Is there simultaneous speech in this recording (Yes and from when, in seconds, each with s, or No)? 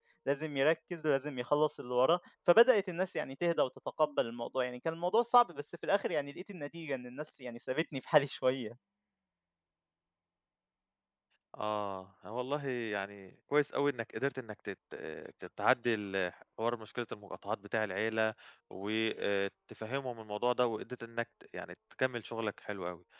No